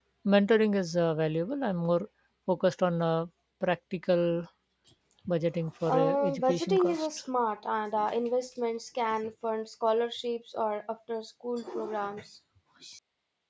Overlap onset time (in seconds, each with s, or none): 5.8 s